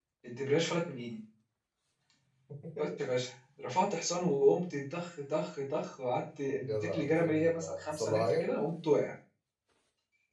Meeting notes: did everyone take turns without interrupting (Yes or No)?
No